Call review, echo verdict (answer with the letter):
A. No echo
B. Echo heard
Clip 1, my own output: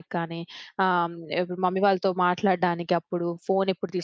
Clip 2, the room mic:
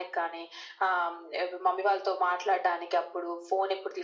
B